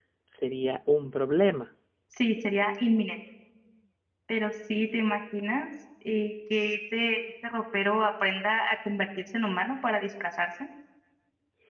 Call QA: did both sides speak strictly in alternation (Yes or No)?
Yes